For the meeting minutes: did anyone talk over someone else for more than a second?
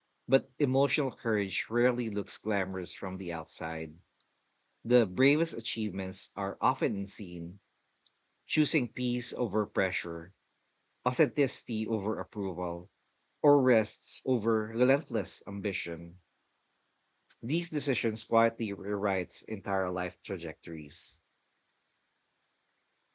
No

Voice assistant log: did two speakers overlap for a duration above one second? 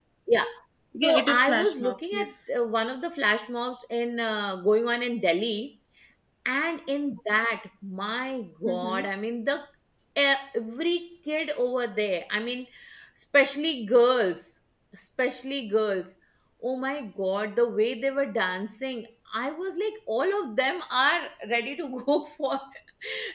Yes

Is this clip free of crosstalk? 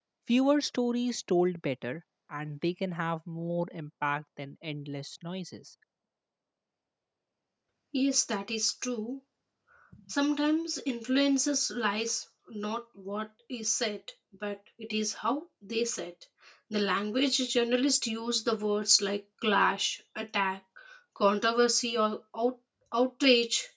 Yes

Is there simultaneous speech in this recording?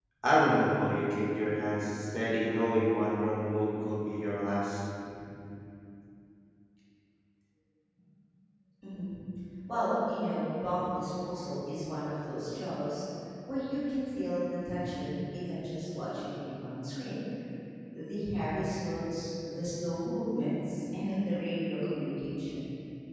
No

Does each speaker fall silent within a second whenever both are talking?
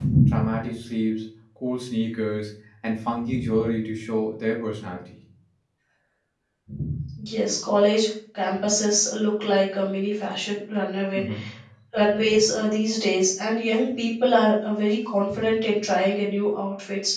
Yes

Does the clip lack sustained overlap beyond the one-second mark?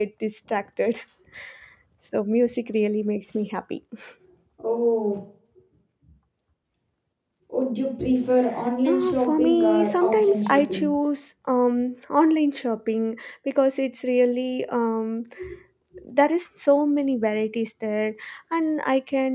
No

